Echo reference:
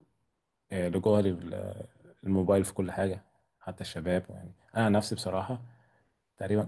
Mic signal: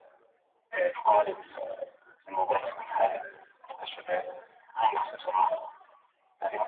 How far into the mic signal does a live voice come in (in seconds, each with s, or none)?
none